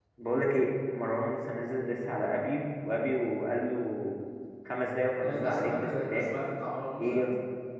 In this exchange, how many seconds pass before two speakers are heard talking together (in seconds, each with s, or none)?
5.2 s